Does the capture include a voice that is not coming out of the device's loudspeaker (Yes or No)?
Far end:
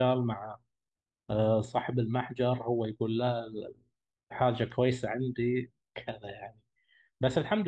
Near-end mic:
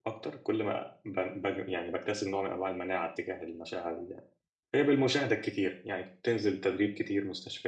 Yes